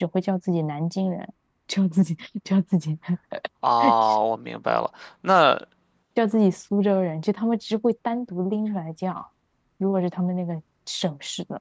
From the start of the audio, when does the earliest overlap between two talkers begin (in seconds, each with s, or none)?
none